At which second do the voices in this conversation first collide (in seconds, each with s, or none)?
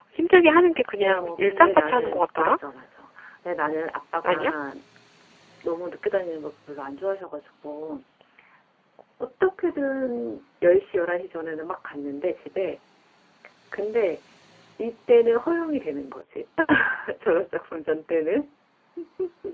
1.0 s